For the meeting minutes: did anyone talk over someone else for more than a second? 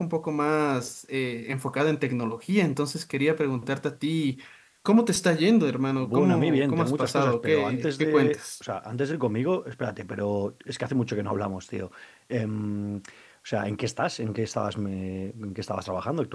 Yes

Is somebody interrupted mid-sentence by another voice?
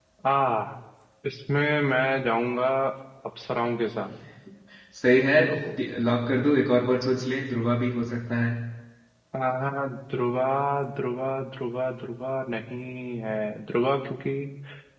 No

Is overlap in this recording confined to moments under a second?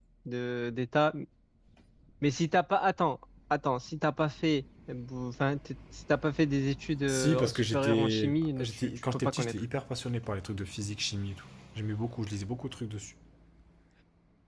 No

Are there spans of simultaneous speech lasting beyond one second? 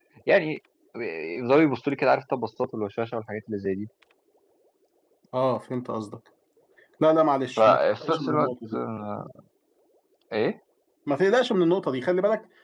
Yes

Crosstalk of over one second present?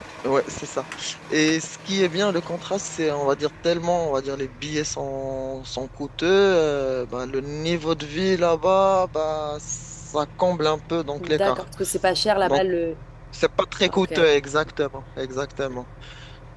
No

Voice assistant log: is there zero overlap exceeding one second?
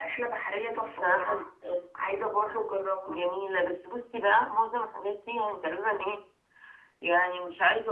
Yes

